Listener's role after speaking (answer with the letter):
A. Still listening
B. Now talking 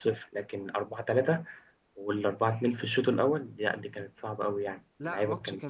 B